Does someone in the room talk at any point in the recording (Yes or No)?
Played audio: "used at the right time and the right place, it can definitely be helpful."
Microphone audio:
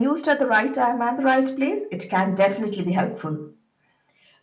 No